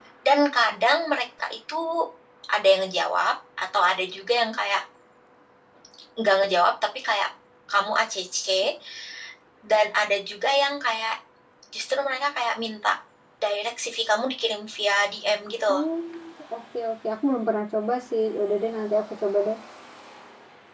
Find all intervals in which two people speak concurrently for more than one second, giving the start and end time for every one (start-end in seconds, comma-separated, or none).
none